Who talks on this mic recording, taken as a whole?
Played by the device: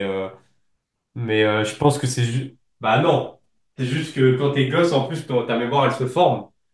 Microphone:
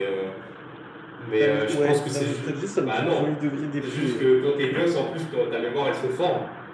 both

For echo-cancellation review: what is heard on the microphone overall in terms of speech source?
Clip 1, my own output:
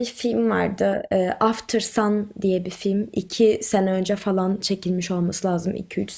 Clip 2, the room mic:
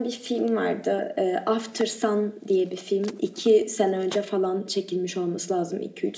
echo only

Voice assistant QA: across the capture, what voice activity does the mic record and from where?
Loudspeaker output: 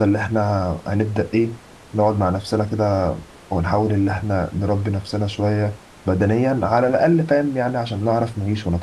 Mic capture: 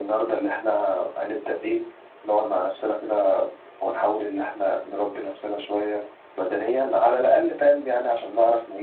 echo only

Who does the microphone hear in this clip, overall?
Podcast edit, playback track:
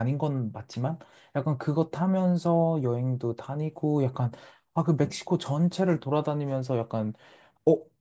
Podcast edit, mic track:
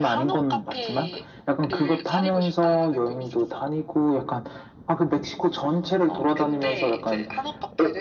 both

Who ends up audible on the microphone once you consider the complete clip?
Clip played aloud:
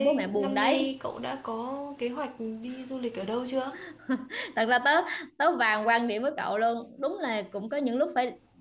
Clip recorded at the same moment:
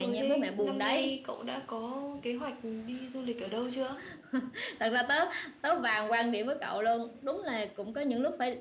echo only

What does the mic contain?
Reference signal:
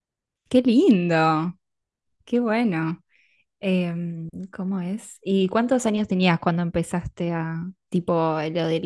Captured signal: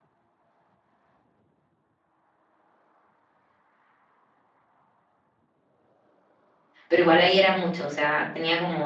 user only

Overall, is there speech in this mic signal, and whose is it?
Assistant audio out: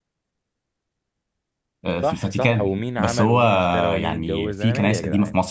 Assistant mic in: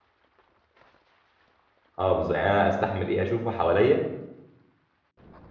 user only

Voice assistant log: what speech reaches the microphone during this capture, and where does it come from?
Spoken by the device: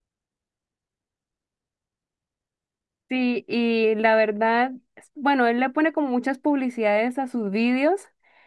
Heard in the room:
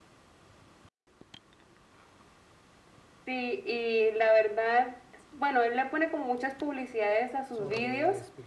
both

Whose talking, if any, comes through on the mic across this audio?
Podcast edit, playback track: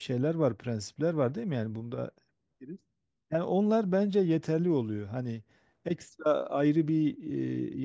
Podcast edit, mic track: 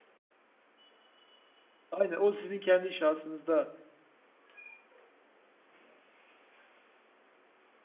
user only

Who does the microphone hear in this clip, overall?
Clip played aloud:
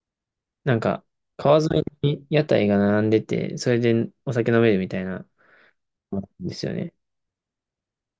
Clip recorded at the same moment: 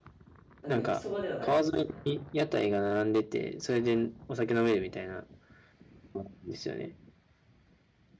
both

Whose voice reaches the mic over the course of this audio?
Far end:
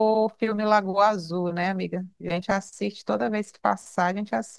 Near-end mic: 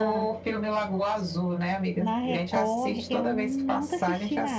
both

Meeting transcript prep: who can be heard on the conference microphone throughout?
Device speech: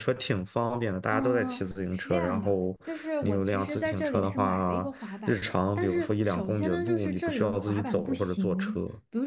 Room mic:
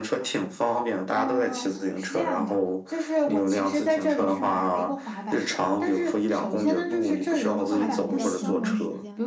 both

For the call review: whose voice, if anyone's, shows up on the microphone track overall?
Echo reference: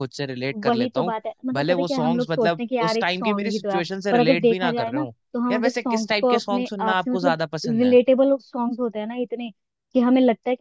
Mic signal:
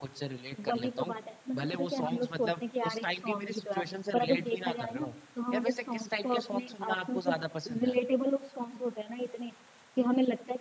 echo only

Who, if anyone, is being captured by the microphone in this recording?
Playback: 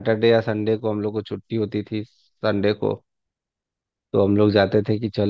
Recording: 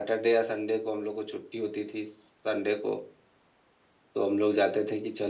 echo only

